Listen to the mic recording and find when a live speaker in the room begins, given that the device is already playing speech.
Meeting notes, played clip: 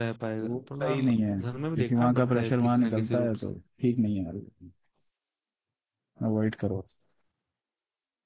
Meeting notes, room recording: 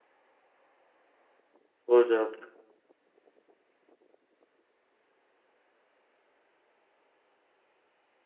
1.9 s

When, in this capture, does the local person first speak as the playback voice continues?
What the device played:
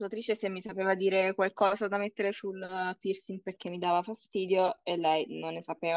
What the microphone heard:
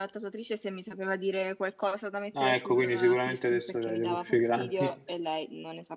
2.4 s

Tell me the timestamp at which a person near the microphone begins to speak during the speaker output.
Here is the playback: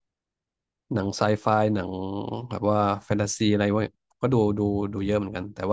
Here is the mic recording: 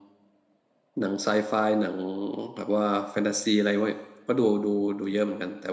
none

